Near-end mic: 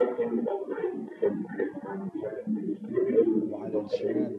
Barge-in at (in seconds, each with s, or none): 3.5 s